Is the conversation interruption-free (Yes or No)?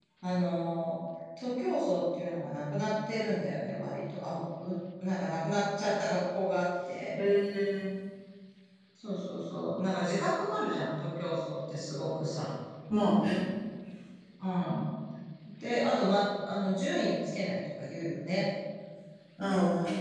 Yes